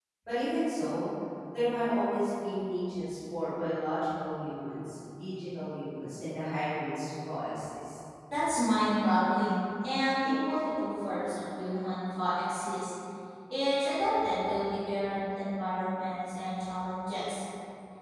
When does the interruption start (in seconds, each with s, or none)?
none